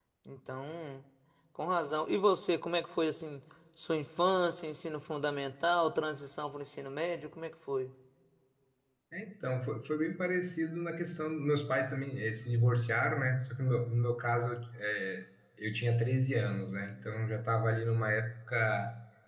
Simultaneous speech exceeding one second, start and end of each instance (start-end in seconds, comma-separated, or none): none